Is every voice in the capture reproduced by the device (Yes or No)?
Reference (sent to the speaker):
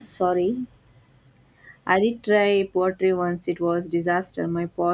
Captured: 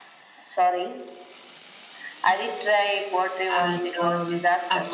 No